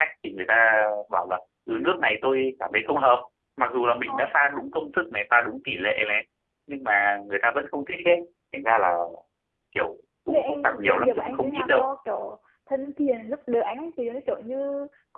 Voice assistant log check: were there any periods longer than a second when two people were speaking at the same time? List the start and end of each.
10.3-11.9

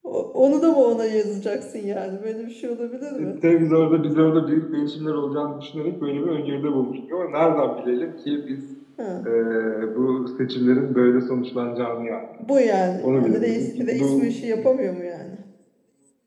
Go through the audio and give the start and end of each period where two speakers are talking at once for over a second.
13.0-14.2

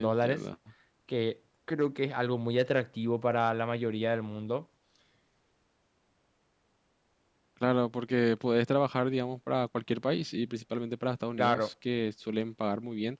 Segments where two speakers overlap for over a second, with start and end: none

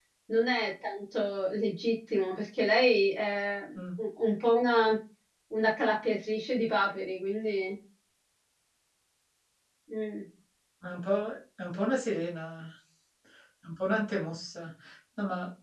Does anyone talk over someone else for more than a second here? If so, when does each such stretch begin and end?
none

